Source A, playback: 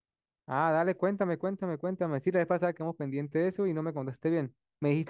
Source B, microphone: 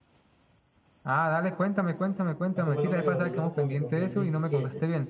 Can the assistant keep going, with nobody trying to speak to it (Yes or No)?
No